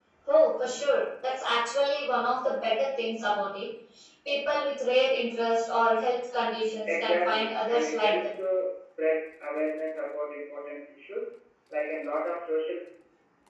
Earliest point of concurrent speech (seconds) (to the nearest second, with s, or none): 7 s